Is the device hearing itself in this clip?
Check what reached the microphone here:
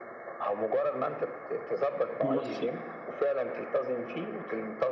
Yes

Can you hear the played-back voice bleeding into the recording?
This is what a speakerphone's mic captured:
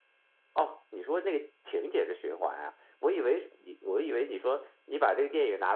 Yes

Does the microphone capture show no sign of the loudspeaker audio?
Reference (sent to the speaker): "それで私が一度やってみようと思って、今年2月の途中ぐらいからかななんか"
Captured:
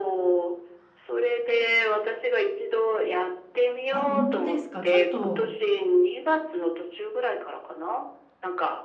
No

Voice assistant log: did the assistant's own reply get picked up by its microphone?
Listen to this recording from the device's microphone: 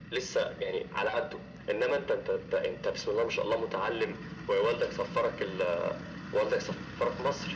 Yes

